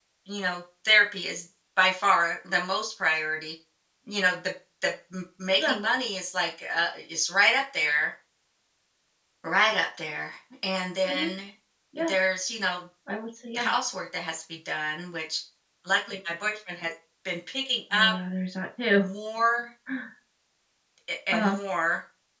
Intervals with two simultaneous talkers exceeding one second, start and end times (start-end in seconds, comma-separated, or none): none